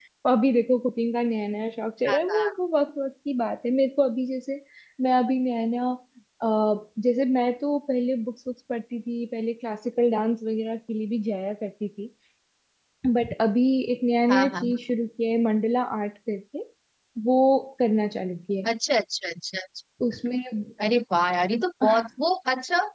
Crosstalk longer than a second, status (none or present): none